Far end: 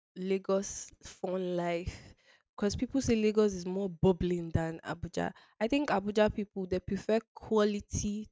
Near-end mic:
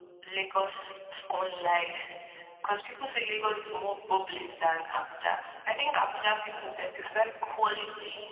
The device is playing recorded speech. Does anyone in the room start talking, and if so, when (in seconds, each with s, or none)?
none